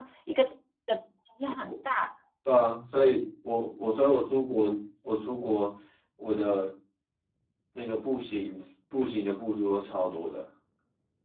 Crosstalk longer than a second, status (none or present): none